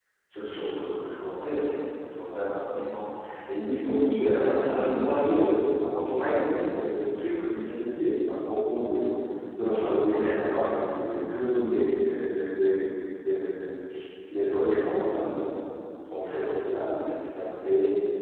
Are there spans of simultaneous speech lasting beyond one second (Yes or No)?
Yes